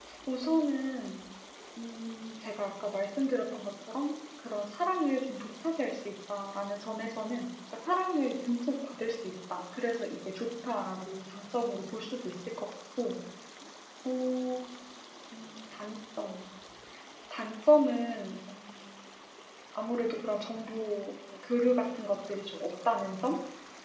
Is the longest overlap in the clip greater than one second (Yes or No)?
No